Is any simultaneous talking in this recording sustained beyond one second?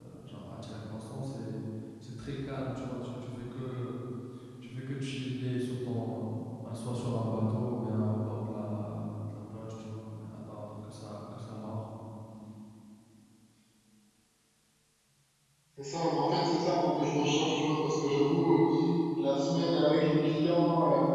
No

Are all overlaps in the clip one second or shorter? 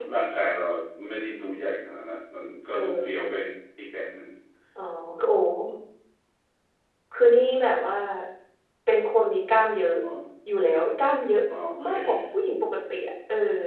Yes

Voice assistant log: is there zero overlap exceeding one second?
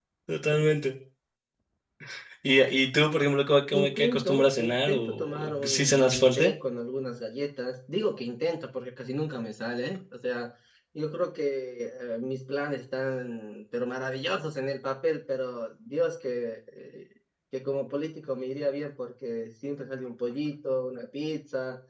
No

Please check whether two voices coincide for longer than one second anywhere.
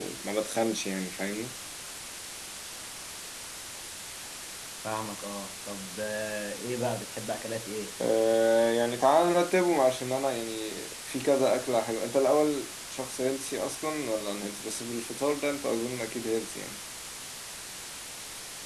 No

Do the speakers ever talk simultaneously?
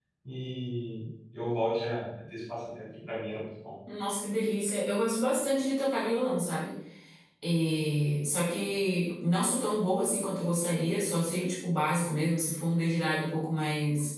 No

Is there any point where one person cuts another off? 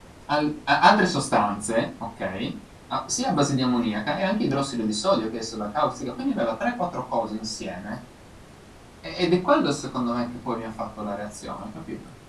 No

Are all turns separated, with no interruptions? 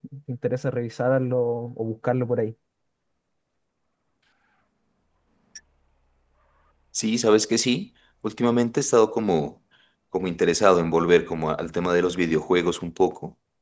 Yes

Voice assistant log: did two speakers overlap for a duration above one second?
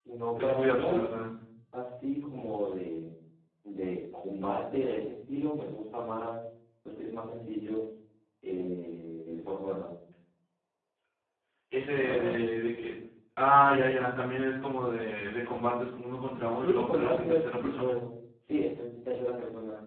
Yes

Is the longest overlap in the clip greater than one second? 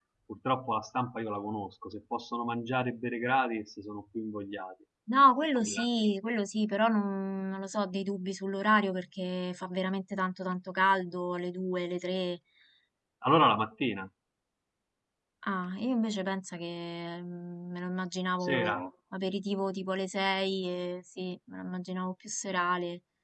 No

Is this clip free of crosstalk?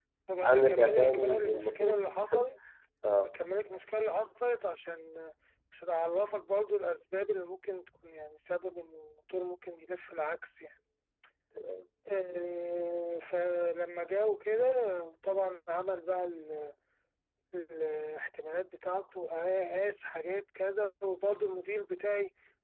No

